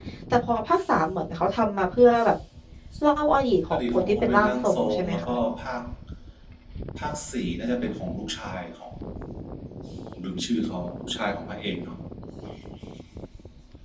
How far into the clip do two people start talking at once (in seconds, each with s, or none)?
3.7 s